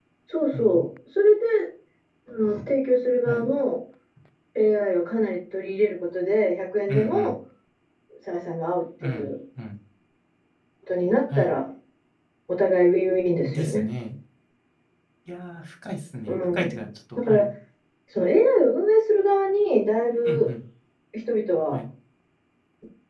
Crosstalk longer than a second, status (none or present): none